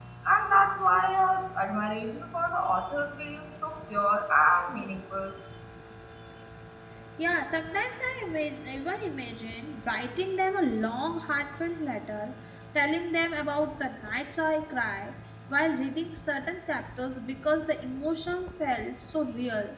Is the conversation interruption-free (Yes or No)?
Yes